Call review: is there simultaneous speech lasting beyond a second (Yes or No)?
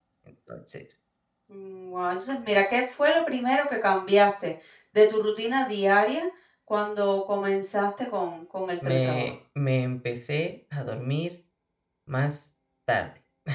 No